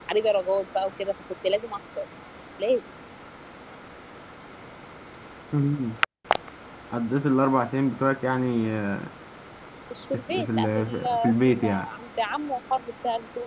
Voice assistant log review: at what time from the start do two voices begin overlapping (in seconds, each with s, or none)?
10.1 s